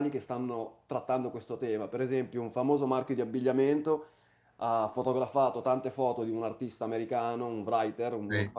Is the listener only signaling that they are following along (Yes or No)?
Yes